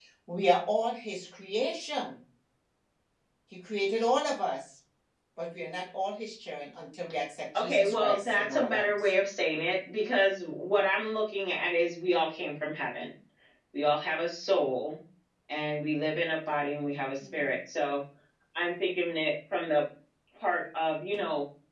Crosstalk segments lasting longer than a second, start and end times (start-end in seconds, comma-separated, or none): 7.6-8.9